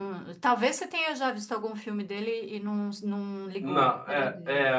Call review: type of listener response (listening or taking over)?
taking over